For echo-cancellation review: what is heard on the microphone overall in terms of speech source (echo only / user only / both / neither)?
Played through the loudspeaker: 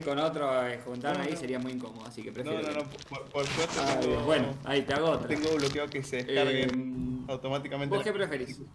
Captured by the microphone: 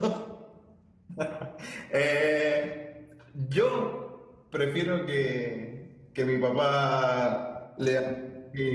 user only